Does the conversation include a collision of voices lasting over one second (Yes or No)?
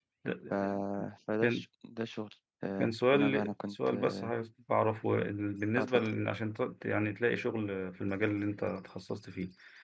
Yes